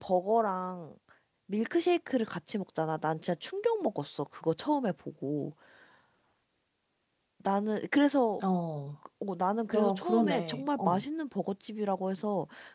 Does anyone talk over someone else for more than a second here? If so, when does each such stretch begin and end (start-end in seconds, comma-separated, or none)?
9.7-11.0